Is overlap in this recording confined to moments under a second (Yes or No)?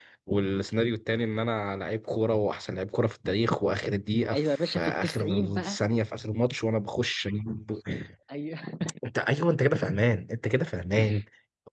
No